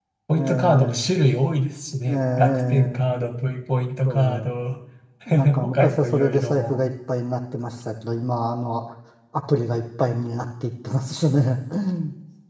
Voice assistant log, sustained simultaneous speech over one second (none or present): present